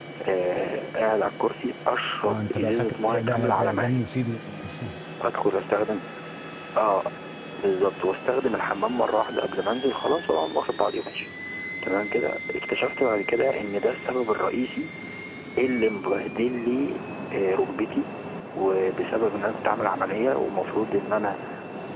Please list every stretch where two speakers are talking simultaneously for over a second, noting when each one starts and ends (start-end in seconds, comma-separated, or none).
2.3-4.0